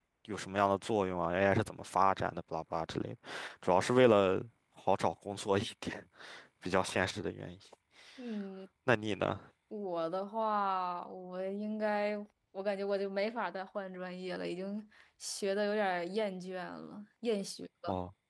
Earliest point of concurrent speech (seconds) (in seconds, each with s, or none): none